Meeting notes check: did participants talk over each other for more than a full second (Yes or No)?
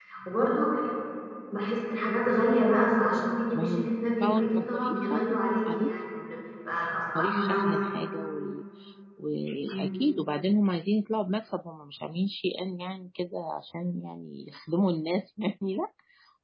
Yes